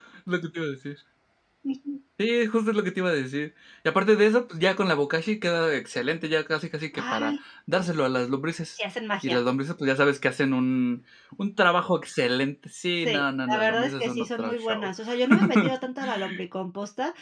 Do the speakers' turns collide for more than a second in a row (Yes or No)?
Yes